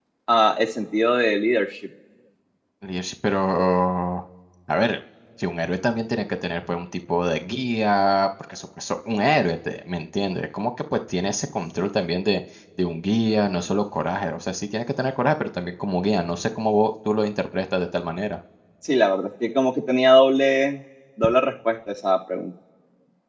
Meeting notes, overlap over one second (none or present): none